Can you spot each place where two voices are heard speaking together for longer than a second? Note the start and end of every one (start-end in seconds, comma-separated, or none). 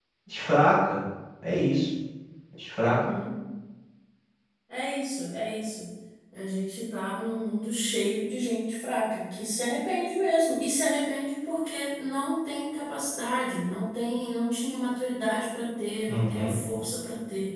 none